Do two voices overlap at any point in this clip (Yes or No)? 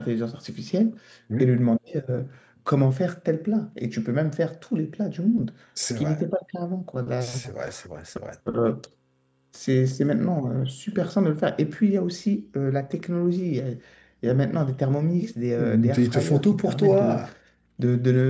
Yes